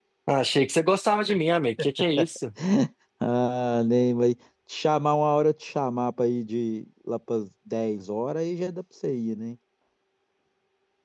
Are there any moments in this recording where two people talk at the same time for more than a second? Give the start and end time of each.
none

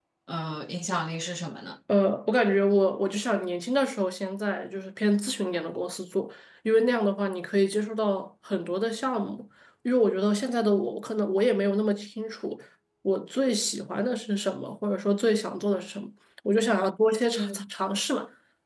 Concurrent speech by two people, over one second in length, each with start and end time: none

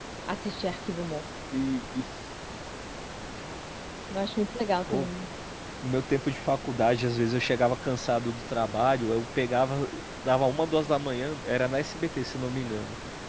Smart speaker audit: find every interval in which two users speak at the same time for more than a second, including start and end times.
none

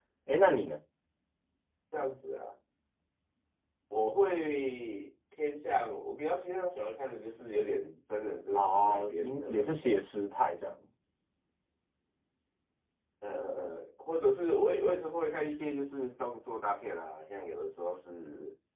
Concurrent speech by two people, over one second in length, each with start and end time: 8.6-9.8

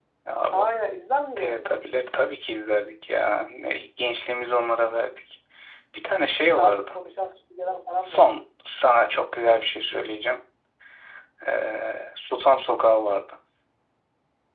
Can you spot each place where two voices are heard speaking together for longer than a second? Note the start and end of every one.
none

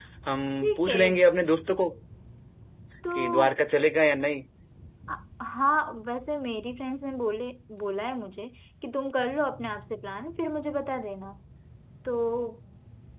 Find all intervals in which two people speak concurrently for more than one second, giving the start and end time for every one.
none

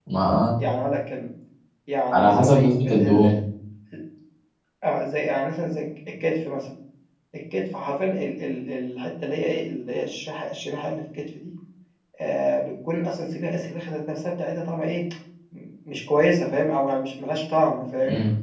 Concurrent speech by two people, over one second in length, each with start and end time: 2.1-3.4

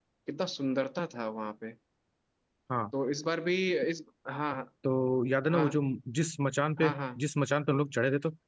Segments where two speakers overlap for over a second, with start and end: none

